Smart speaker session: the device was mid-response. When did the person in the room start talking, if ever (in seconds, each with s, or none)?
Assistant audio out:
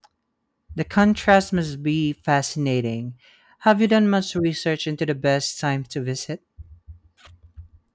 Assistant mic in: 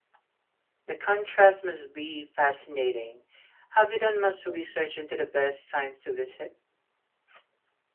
none